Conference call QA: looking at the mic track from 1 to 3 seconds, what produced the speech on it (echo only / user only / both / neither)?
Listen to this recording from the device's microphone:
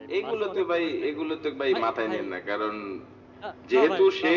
both